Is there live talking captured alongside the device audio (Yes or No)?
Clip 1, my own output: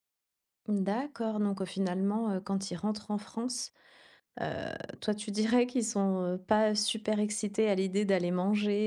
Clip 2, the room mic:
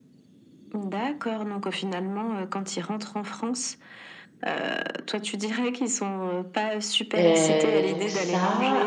Yes